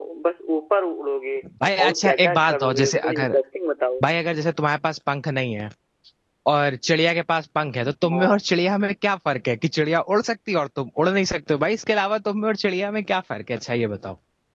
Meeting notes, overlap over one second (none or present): present